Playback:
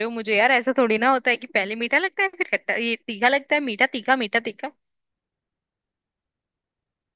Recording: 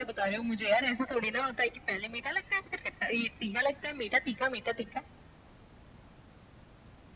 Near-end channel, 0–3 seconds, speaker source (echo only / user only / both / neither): echo only